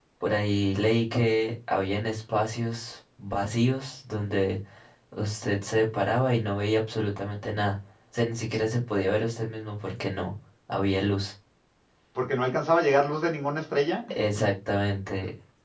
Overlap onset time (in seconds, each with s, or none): none